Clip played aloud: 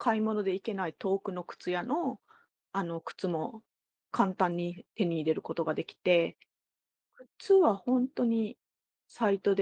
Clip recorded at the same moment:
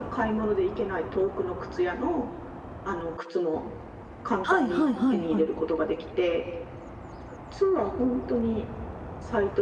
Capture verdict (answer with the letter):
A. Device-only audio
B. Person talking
B